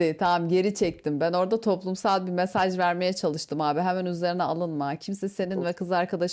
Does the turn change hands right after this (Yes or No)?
No